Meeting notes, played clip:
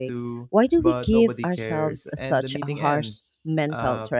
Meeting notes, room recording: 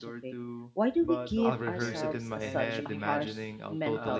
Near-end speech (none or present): present